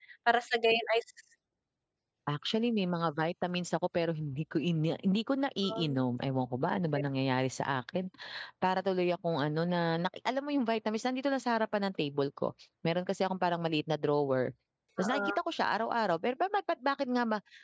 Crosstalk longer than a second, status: none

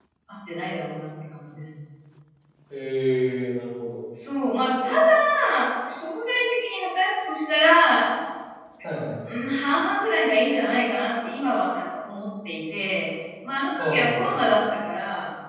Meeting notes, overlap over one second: none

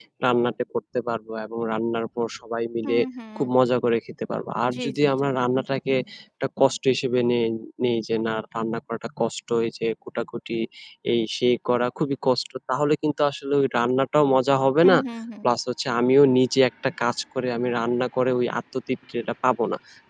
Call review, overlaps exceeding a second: none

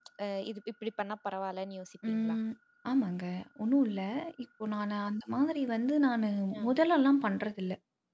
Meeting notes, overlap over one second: none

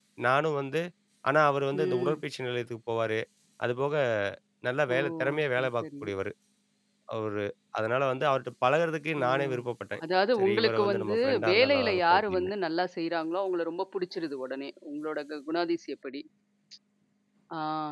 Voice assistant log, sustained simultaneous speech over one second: present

